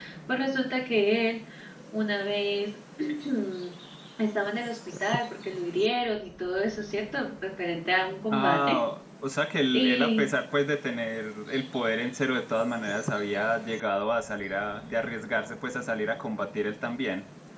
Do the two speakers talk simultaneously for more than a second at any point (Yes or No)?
No